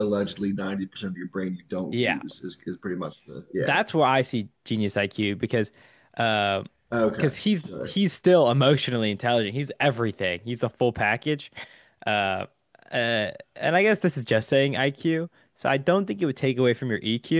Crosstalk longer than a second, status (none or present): none